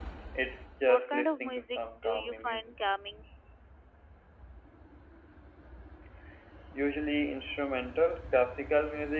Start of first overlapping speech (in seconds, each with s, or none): 0.9 s